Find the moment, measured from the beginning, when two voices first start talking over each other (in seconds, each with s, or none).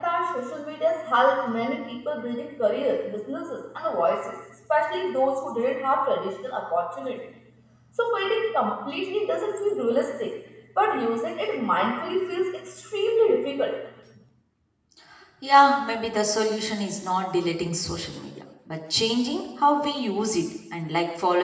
none